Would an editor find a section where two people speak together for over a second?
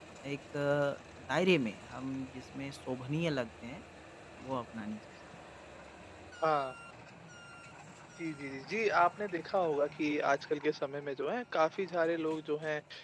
No

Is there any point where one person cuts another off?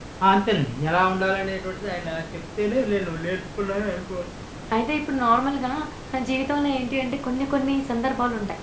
No

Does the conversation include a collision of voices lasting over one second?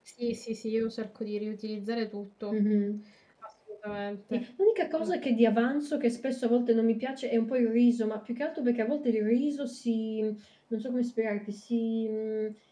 No

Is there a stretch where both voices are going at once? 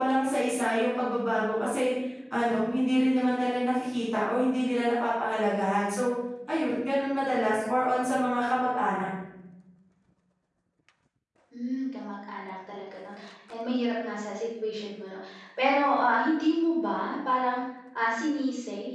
No

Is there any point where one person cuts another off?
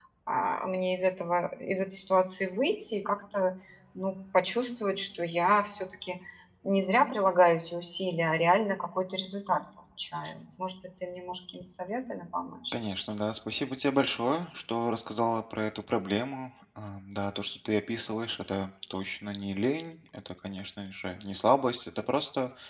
No

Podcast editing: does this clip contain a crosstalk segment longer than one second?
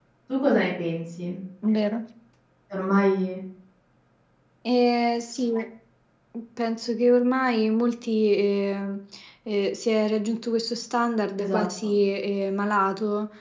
No

